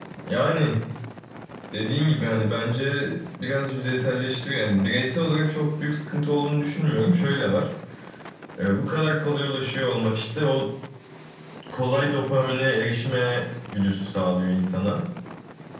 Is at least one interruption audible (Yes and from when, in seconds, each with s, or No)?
No